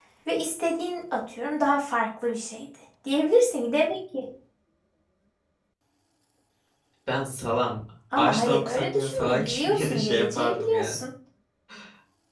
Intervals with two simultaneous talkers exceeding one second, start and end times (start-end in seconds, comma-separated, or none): 8.2-11.0